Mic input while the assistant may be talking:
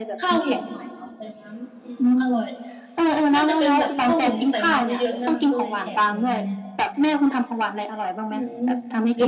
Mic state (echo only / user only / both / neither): both